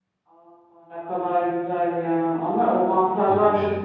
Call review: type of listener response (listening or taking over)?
listening